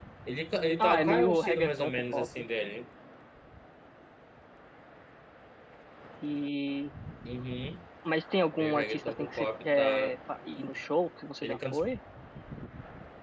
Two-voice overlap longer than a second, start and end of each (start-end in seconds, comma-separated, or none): 0.8-2.4, 8.6-10.1